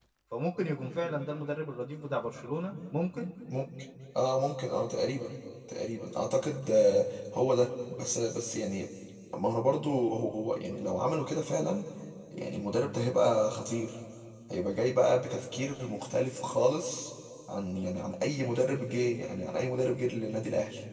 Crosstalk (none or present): none